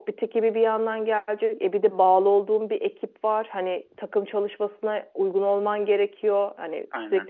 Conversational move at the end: listening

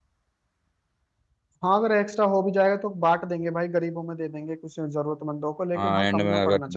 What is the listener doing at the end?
taking over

